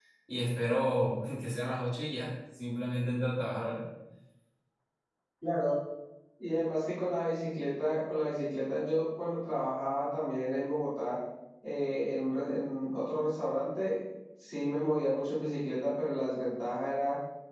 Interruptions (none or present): none